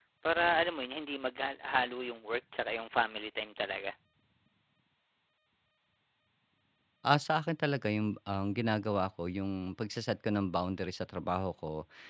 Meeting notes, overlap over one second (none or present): none